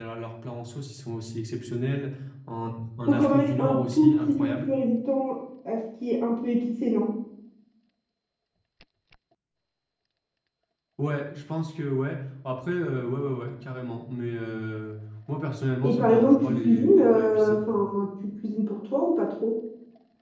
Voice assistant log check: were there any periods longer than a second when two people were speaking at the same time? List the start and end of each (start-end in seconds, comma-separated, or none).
3.1-4.7, 15.8-17.6